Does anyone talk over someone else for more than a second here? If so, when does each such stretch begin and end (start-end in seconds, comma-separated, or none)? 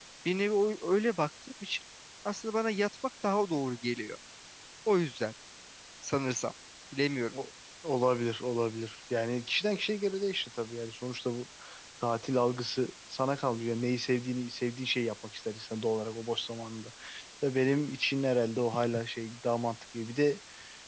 none